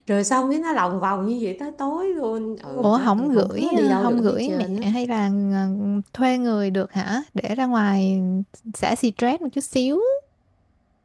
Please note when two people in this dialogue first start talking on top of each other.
3 s

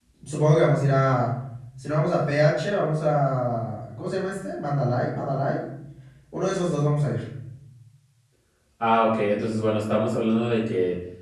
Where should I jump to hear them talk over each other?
none

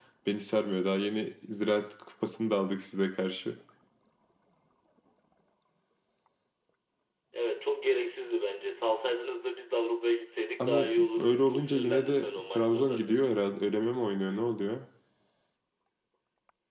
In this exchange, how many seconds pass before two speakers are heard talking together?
11 s

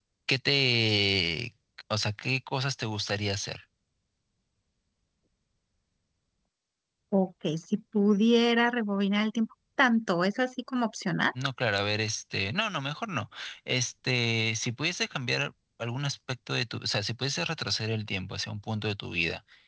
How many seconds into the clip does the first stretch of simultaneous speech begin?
none

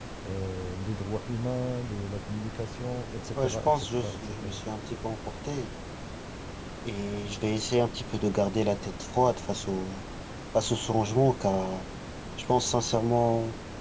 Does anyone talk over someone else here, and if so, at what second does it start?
3 s

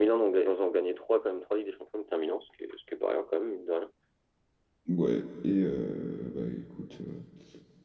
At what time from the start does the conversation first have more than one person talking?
none

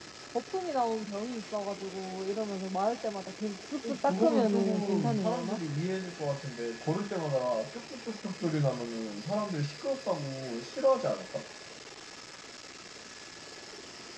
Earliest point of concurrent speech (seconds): 4 s

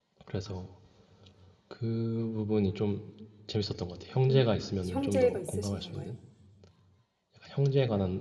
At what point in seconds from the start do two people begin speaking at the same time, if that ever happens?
4 s

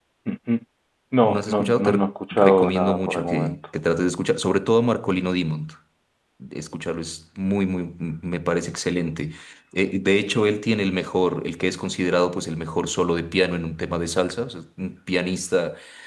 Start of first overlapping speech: 1 s

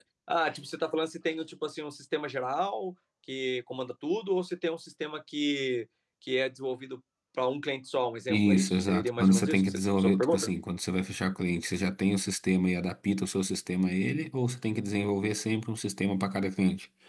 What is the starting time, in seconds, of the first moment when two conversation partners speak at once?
8 s

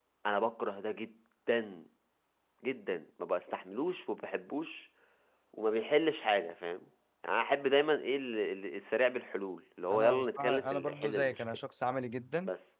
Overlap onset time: 10 s

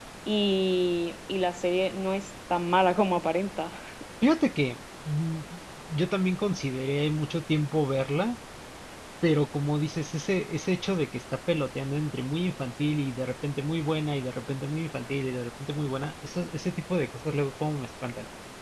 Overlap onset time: none

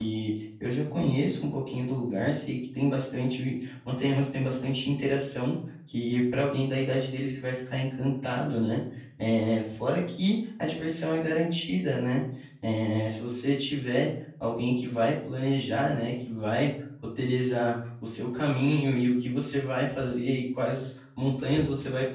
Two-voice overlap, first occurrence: none

